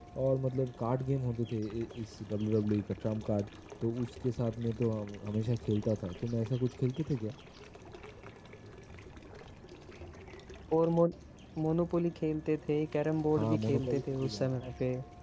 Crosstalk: present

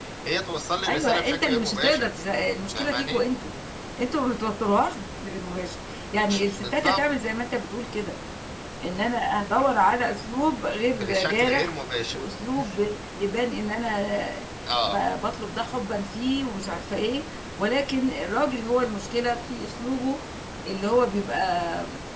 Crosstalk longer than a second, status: present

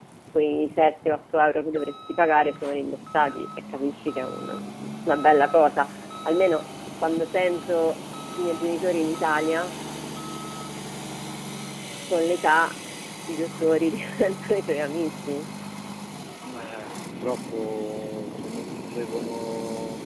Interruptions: none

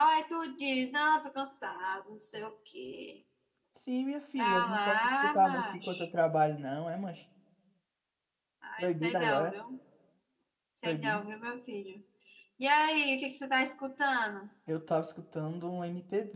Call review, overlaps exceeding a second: present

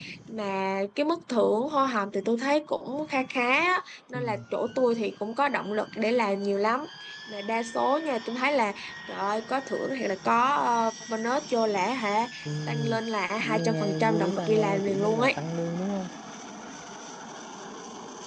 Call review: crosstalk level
present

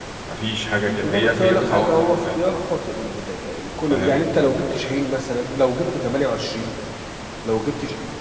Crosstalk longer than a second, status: present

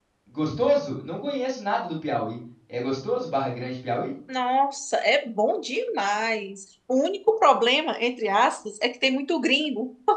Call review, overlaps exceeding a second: none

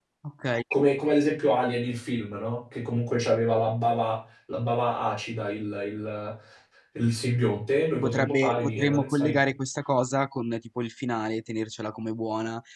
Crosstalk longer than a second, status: present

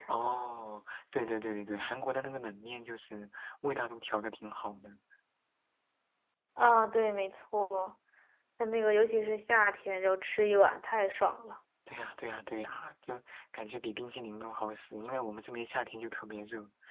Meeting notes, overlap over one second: none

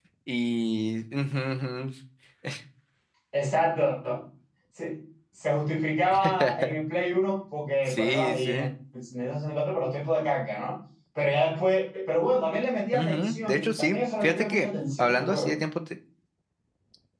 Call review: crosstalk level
present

